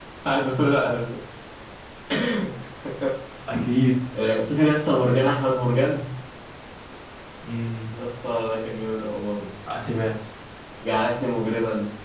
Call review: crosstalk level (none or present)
none